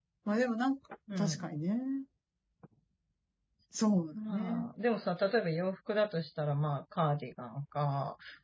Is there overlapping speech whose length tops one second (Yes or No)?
No